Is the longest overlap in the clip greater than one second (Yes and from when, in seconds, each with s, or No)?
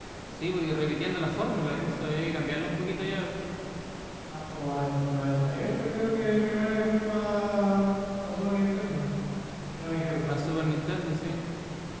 No